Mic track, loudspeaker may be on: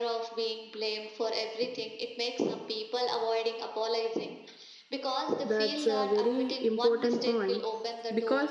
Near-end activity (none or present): present